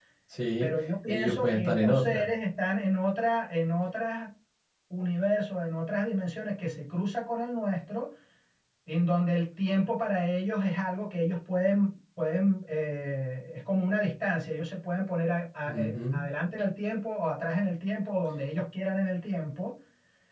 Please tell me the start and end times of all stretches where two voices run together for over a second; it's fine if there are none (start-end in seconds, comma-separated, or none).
0.6-2.3